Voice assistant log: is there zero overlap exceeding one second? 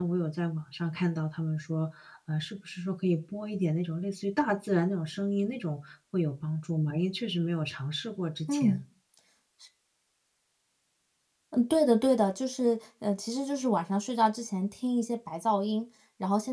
Yes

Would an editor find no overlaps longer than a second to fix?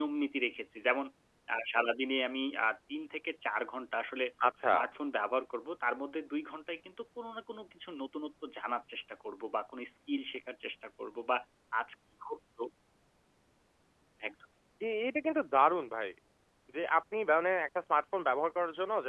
Yes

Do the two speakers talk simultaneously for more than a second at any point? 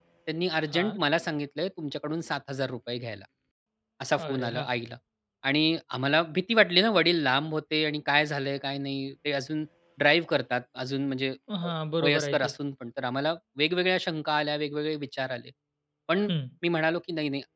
No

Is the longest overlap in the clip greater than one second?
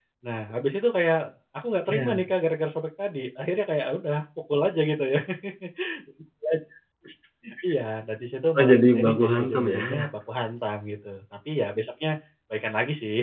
Yes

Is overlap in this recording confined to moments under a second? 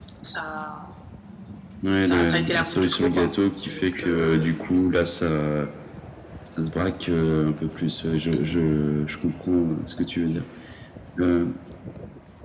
No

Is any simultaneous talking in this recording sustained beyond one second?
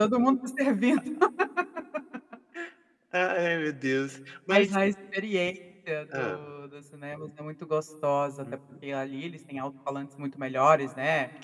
No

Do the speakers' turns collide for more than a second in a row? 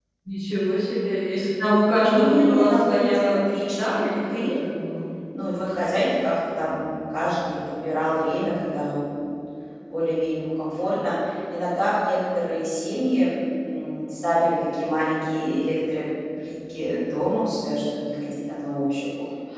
Yes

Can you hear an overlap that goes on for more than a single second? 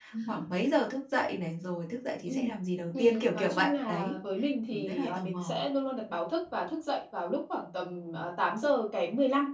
Yes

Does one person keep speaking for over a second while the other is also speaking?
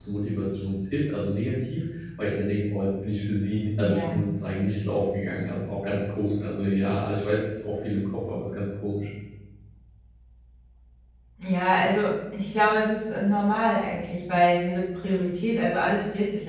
No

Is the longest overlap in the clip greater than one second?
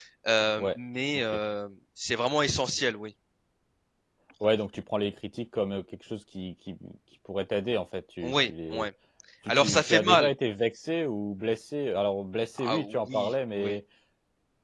Yes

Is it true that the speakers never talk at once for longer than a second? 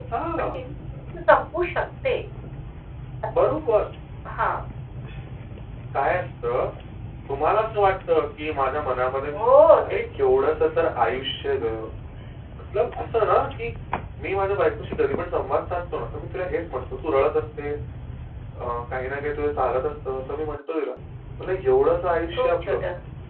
Yes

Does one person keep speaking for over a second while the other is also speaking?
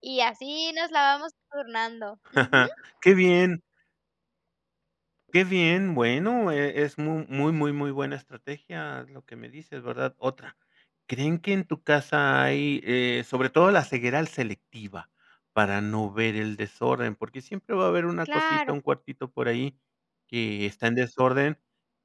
No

